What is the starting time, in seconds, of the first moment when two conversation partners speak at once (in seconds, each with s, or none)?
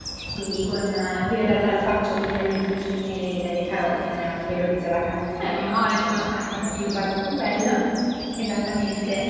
5.4 s